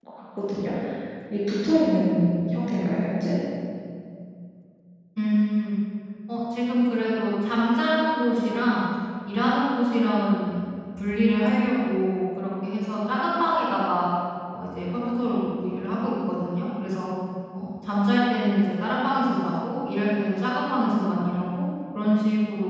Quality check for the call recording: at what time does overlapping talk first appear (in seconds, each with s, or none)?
none